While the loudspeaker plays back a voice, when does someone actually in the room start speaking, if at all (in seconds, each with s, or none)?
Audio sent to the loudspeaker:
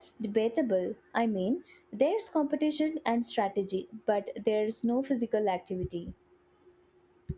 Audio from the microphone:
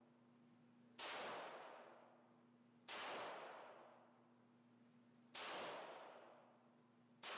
none